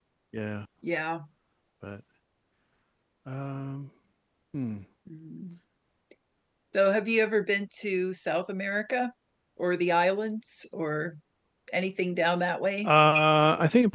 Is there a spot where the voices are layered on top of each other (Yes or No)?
No